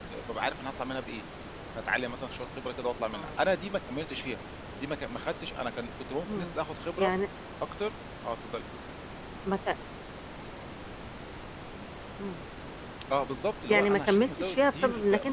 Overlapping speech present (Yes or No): Yes